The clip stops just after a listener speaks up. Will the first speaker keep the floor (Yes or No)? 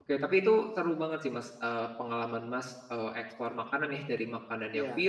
Yes